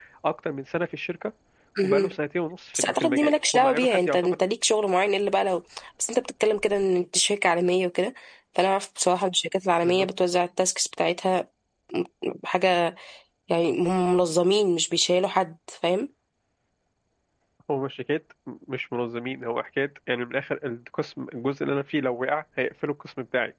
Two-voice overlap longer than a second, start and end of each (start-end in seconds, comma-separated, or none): 2.8-4.5